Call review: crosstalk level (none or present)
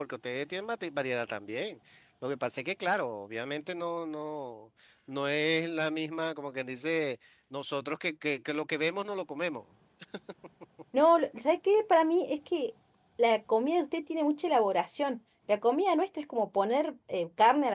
none